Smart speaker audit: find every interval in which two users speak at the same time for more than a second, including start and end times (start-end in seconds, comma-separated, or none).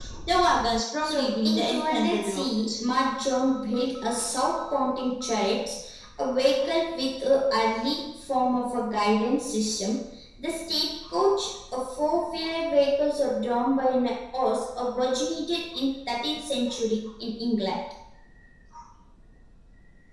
1.0-2.5